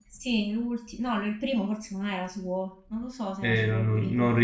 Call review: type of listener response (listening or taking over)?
taking over